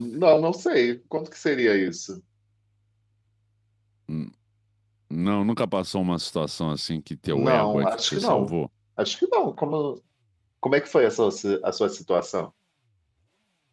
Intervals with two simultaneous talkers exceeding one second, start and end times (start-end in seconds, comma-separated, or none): 7.3-8.5